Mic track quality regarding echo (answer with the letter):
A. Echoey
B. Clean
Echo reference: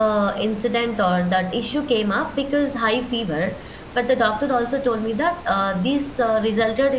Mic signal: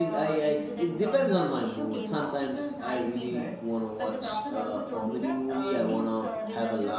A